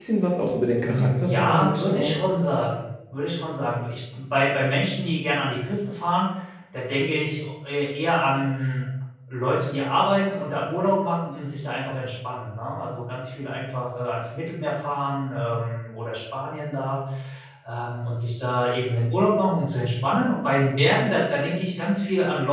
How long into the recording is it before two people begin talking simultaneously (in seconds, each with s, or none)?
0.8 s